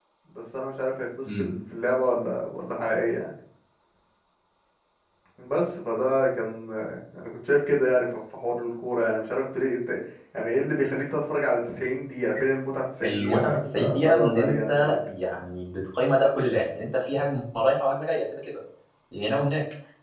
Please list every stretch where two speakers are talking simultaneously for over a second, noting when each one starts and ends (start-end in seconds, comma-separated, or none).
13.0-15.0